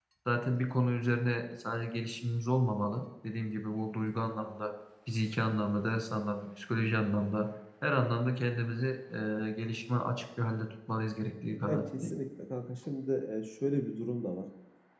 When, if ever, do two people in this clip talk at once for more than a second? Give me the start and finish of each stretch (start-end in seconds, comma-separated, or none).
none